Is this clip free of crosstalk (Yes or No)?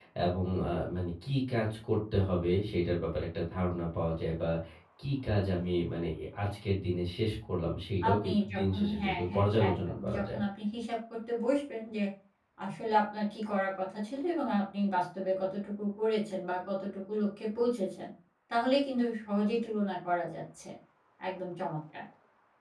No